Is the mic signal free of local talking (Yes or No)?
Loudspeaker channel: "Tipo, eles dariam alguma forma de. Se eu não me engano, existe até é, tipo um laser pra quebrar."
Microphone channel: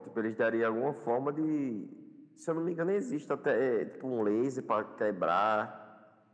Yes